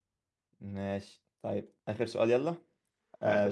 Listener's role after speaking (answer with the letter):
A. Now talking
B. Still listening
B